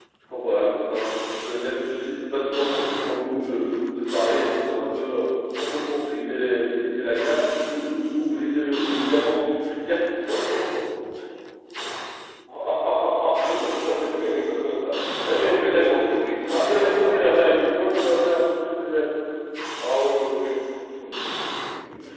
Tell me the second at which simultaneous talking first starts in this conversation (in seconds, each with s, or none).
15.4 s